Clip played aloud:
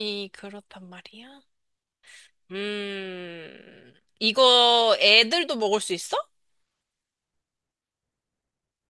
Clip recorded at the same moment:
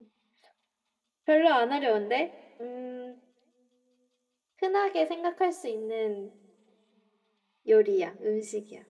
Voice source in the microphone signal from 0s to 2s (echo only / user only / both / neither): user only